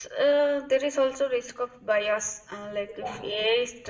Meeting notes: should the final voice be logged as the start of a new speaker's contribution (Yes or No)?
No